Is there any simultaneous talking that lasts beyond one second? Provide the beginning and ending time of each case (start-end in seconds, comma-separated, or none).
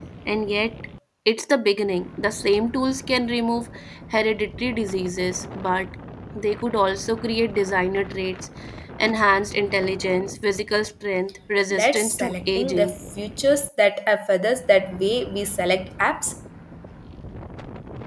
11.7-12.9